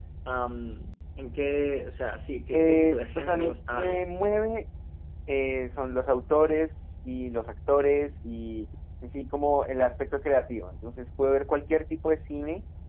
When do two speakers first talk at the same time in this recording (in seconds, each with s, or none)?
2.5 s